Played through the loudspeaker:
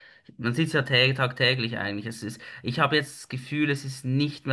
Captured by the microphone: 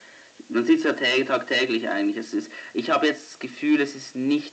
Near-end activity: none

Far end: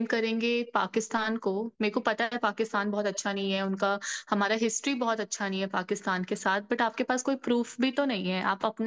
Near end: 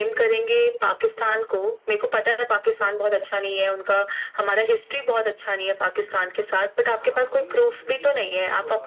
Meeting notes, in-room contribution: present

